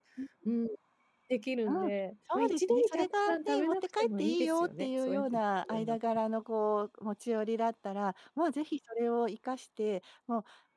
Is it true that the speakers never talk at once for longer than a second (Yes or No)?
No